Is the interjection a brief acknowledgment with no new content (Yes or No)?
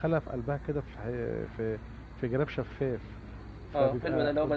No